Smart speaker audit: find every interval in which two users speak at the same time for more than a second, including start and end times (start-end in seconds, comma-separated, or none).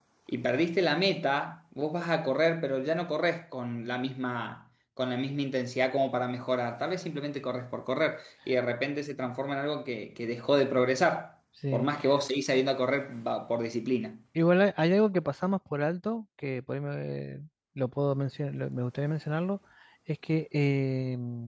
none